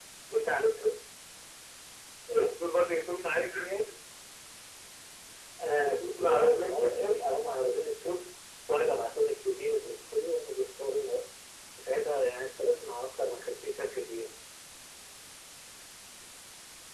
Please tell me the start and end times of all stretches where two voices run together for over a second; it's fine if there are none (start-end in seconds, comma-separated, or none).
5.8-7.2